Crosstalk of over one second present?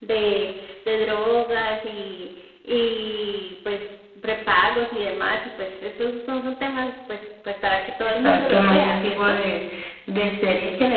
Yes, from 8.0 s

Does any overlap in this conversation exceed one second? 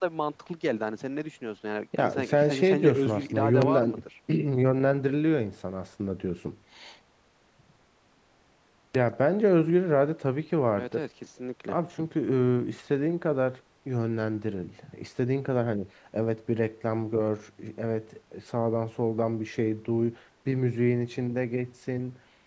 Yes, from 2.0 s

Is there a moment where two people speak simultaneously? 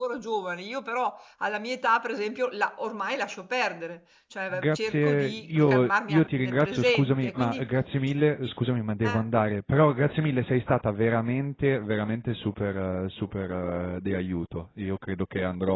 Yes, from 4.5 s

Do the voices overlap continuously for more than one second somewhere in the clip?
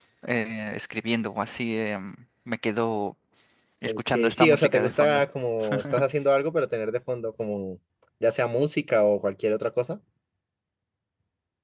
Yes, from 3.9 s

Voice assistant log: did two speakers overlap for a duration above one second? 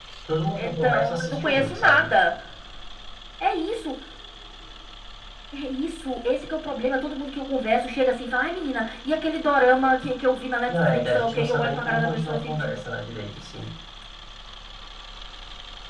Yes, from 0.6 s

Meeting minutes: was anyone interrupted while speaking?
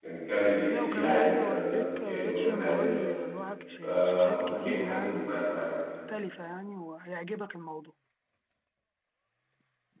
Yes, from 0.7 s

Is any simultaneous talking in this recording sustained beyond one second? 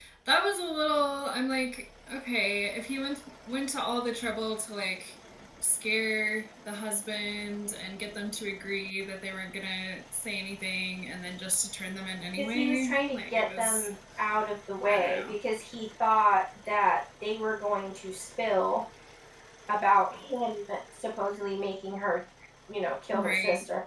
Yes, from 12.4 s

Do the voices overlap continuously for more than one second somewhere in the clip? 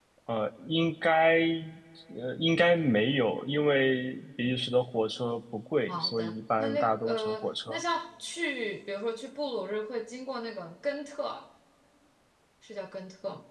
Yes, from 5.9 s

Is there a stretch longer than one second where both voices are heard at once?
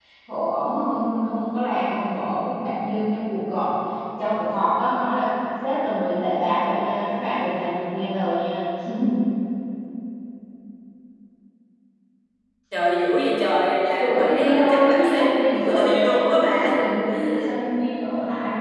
Yes, from 14.0 s

